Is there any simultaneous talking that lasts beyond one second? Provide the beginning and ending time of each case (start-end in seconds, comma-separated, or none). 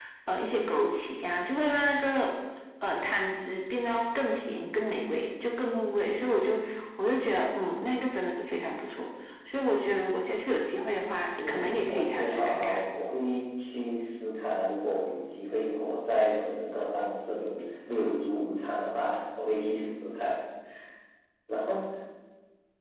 11.4-12.8